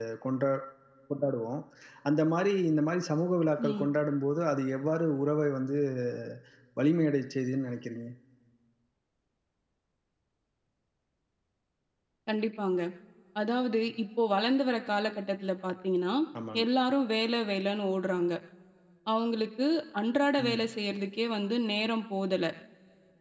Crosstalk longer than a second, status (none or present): none